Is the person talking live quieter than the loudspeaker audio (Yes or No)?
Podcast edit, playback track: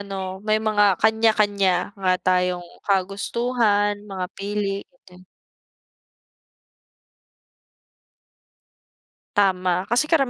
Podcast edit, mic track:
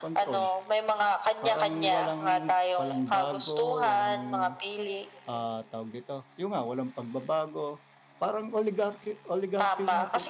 Yes